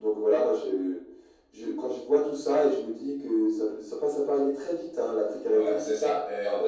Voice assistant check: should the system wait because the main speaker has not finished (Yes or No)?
No